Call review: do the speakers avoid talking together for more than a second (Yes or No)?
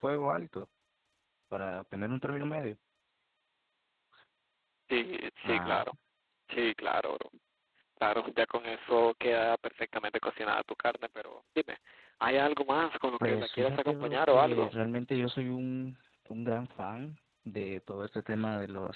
No